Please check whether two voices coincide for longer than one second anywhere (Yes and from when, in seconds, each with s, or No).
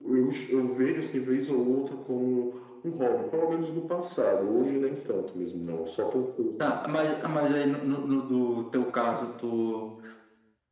No